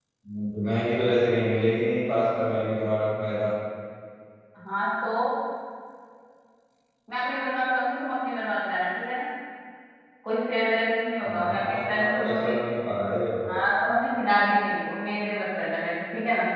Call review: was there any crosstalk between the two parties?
Yes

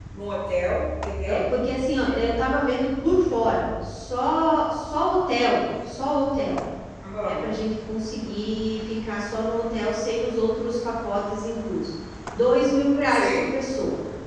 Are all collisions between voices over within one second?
Yes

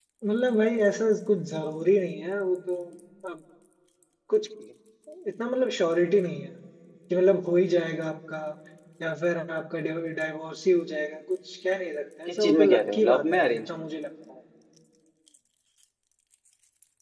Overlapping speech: Yes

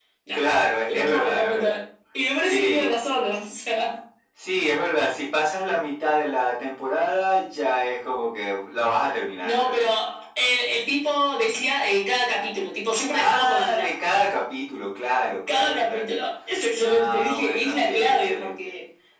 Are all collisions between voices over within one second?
No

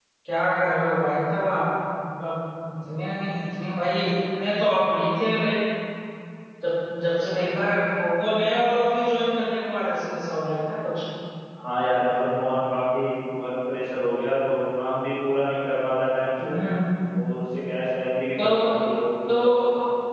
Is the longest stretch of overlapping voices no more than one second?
Yes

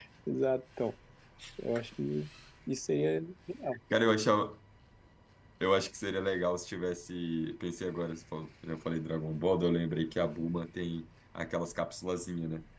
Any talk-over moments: No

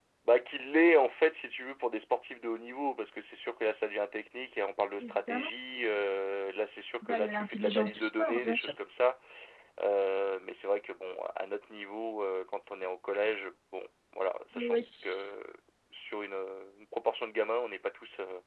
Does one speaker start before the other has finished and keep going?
Yes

